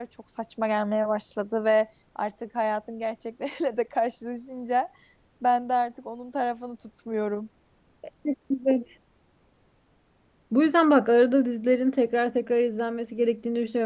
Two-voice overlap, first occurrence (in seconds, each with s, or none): none